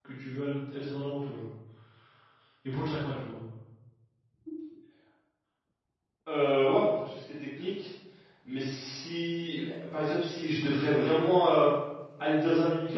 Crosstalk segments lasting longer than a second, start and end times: none

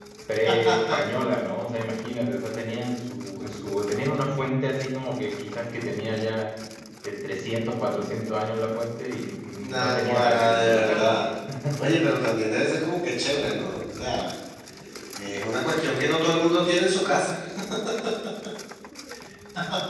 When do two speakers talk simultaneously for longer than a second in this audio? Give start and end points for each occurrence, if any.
9.6-11.2

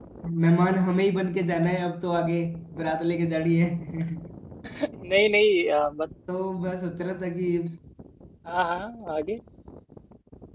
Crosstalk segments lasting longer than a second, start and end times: none

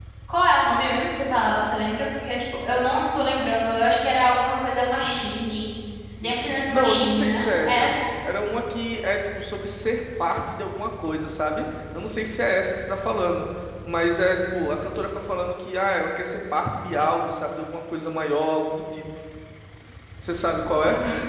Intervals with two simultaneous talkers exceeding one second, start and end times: 6.7-7.9

